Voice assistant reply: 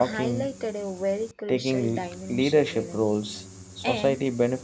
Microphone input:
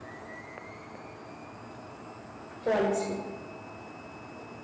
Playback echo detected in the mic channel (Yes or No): No